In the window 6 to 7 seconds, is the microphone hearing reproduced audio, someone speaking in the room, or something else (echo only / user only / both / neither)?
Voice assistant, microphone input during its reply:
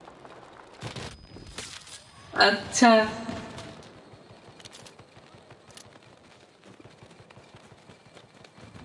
neither